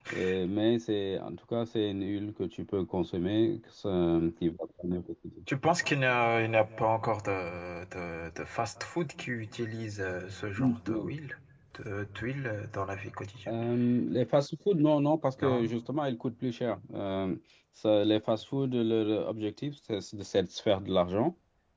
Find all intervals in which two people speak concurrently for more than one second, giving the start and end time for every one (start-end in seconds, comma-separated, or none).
none